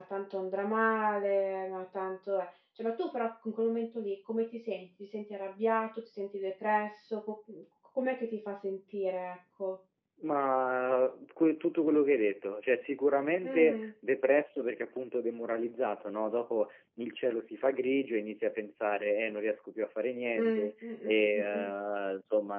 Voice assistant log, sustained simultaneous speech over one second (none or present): present